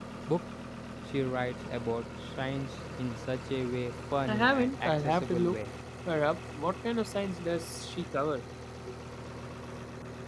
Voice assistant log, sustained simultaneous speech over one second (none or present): present